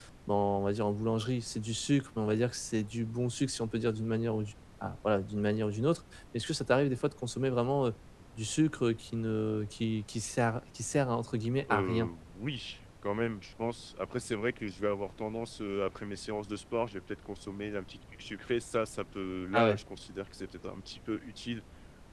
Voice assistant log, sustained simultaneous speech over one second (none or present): none